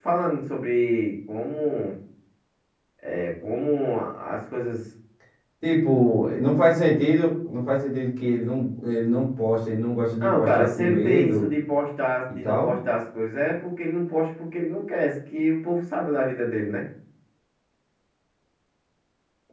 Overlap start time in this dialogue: 10.2 s

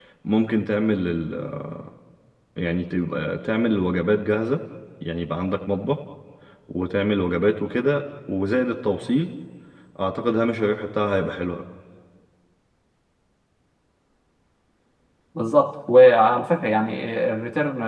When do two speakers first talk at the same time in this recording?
none

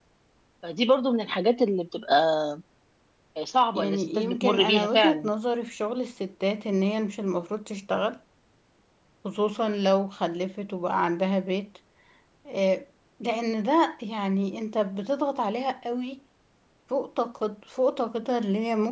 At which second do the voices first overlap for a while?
3.7 s

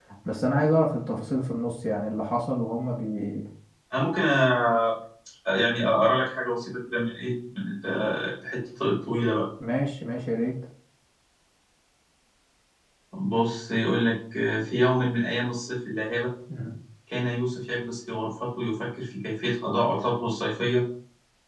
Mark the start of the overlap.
none

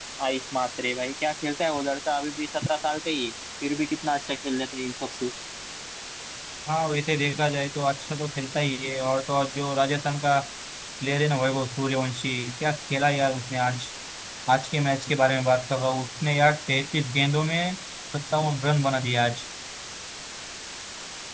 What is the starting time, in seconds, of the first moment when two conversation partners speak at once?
none

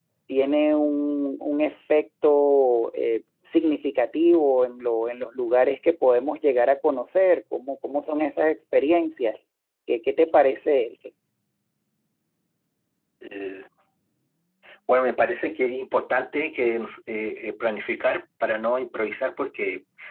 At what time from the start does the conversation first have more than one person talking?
none

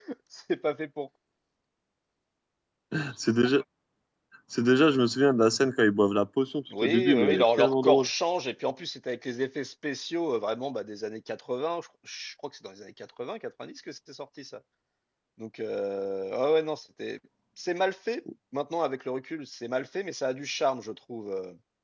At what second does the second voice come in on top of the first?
6.7 s

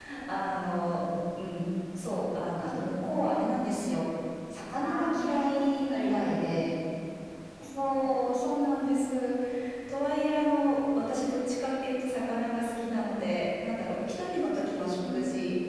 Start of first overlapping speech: 4.8 s

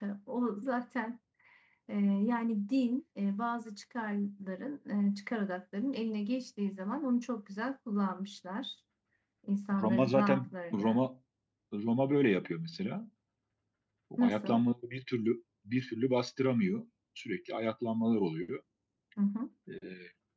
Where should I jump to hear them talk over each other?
9.8 s

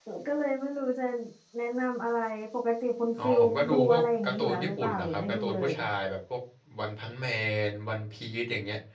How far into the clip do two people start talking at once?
3.2 s

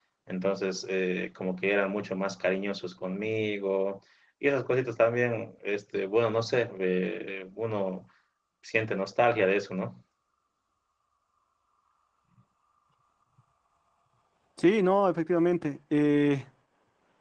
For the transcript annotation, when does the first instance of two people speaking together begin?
none

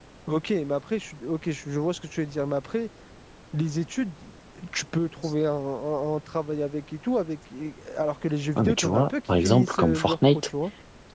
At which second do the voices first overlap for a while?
8.6 s

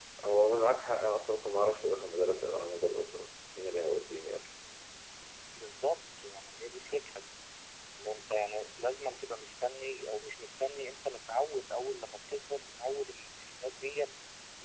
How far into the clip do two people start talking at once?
none

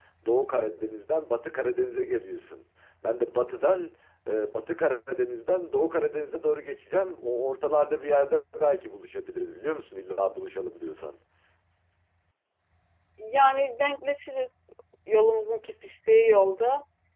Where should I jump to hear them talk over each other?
none

